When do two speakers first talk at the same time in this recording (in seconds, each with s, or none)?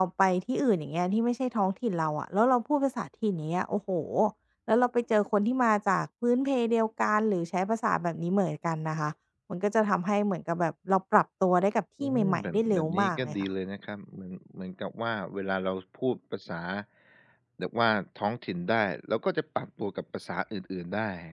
12.0 s